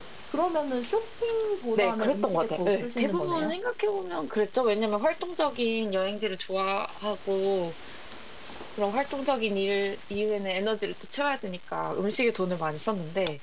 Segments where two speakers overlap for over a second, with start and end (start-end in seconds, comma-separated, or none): 1.8-3.5